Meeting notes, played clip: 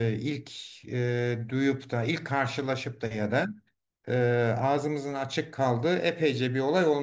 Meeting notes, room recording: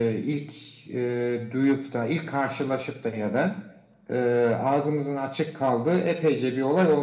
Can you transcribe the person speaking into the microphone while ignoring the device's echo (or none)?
none